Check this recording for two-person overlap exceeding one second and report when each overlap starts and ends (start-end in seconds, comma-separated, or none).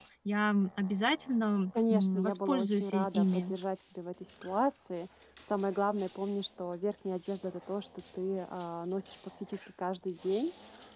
1.9-3.5